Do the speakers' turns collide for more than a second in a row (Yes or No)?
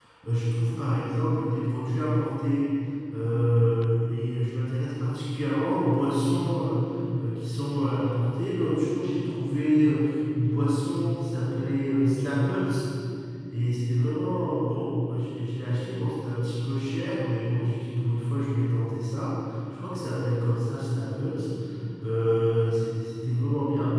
No